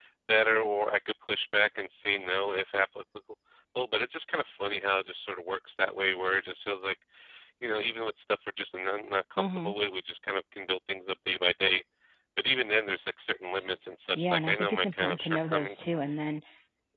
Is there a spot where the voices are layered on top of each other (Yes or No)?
Yes